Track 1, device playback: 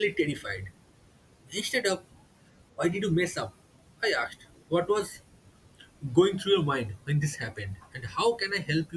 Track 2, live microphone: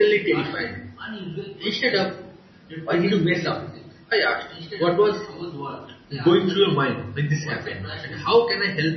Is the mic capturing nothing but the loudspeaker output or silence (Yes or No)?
No